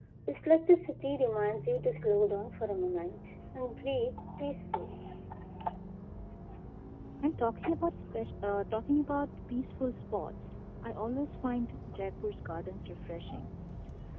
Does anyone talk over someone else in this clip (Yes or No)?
No